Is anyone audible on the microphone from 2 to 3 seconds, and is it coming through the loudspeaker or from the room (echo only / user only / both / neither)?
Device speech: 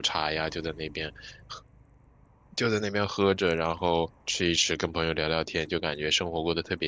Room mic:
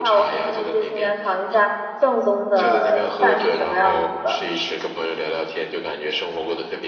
both